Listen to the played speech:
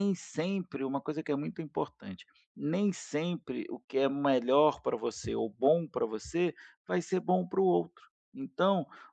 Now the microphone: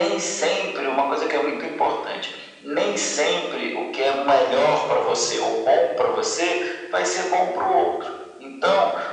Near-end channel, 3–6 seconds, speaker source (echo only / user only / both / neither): echo only